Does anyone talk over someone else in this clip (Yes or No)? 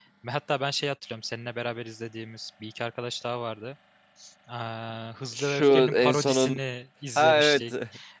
Yes